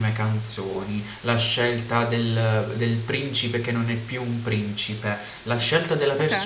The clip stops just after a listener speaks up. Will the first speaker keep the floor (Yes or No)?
Yes